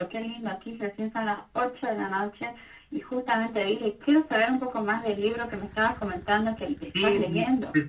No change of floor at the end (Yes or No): No